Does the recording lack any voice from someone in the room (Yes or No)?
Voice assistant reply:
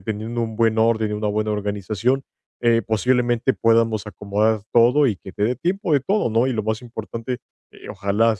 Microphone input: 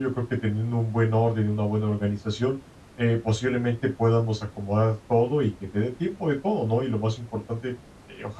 Yes